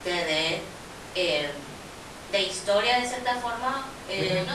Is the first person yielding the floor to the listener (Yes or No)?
No